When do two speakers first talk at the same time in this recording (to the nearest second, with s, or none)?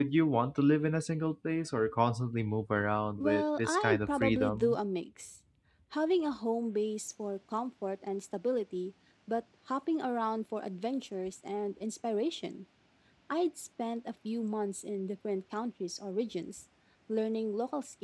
3 s